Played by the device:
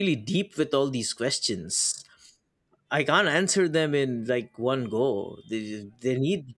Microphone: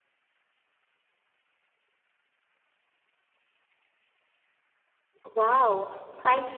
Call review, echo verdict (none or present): none